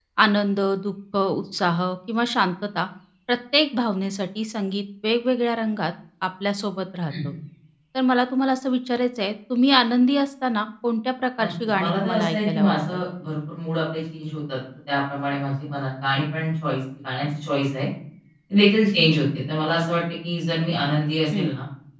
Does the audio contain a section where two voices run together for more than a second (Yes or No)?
Yes